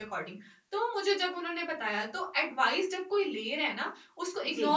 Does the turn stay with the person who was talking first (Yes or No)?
Yes